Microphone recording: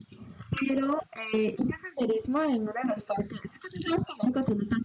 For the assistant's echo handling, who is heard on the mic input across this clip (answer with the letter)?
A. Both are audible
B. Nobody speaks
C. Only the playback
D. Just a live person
C